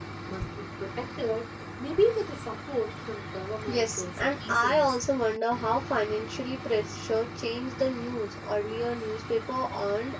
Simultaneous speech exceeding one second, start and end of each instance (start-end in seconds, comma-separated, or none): 3.7-5.0